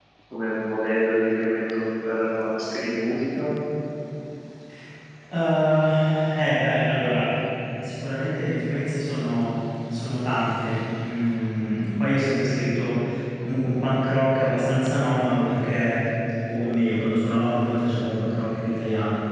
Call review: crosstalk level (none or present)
none